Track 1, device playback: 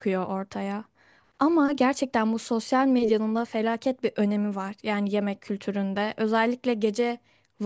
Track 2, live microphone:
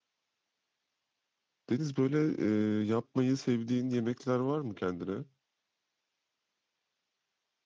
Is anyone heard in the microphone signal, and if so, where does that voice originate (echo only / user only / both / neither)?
user only